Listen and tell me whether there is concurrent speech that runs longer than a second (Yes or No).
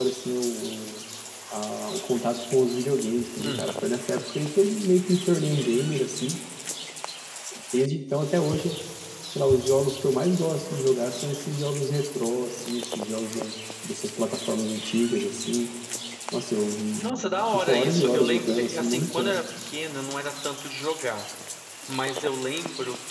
Yes